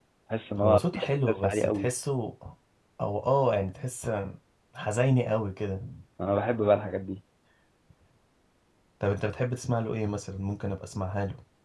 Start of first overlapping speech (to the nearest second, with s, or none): 1 s